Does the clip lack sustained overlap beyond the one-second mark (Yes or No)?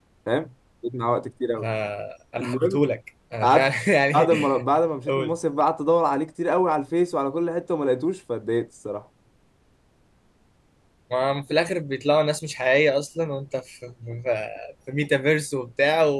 Yes